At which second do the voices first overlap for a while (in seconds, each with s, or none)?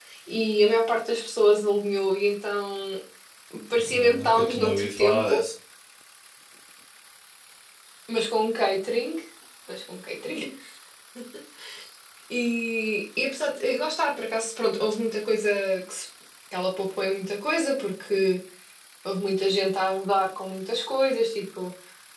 3.8 s